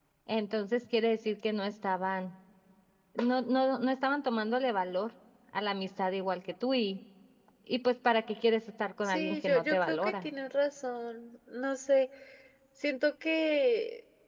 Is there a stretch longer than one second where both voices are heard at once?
Yes, from 9.0 s

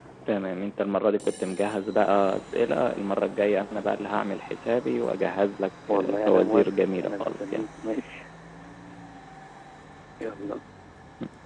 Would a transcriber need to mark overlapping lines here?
Yes, from 5.9 s

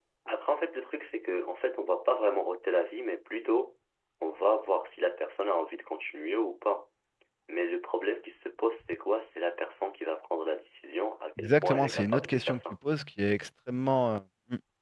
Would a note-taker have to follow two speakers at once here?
Yes, from 11.4 s

